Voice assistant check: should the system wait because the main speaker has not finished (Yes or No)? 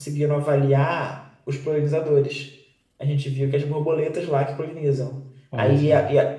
Yes